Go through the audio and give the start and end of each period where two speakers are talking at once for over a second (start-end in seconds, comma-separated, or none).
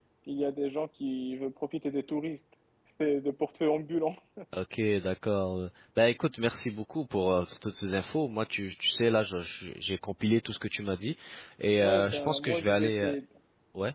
11.8-13.1